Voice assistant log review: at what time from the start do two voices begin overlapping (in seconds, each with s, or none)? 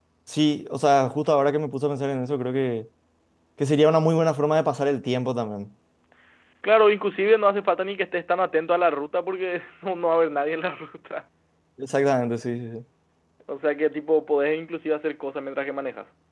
none